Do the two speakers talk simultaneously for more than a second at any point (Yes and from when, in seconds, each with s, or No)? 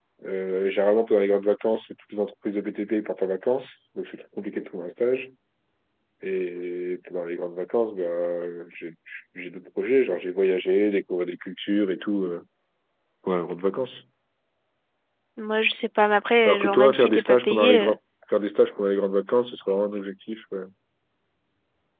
Yes, from 16.4 s